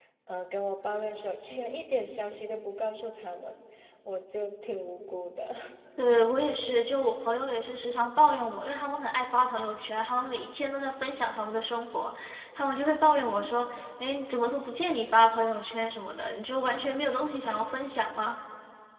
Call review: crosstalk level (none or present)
none